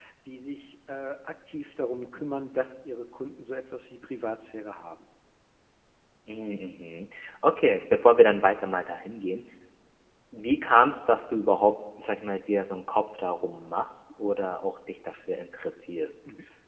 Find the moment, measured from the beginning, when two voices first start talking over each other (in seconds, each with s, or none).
none